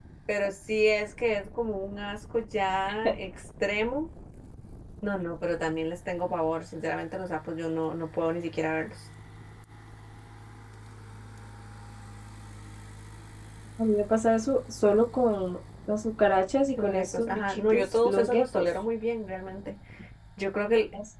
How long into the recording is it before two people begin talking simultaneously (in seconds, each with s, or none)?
16.8 s